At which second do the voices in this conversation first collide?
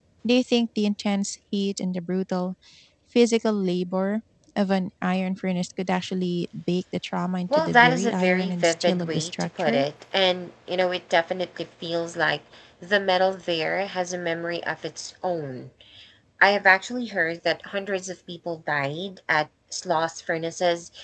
7.5 s

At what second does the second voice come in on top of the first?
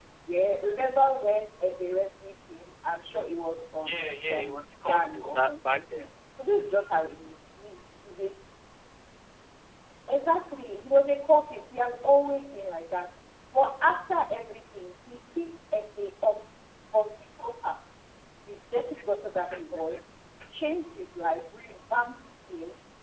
3.9 s

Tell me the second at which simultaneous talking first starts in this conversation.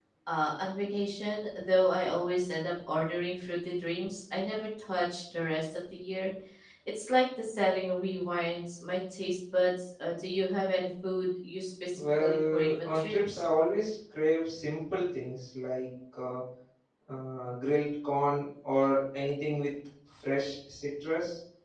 12.0 s

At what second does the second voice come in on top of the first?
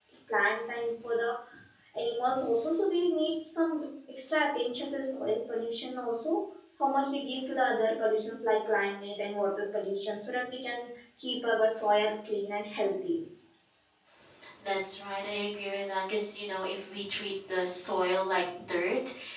none

